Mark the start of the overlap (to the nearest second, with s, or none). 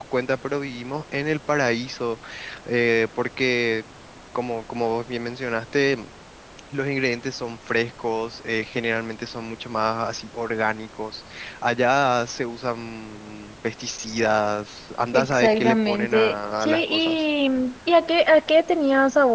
15 s